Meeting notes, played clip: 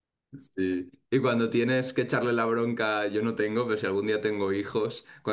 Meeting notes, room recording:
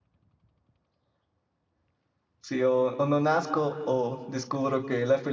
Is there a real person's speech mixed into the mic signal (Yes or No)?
Yes